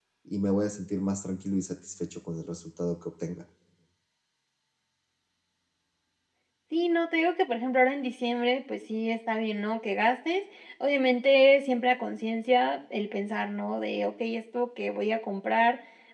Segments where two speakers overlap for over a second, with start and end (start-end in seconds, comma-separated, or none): none